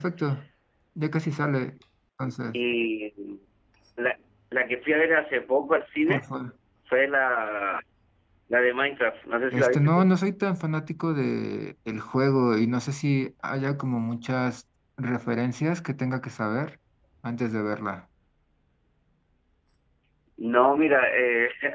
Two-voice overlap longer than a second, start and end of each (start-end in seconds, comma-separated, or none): none